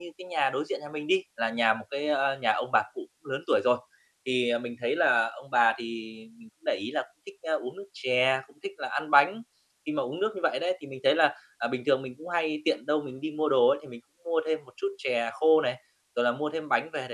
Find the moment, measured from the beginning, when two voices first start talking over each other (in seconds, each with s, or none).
none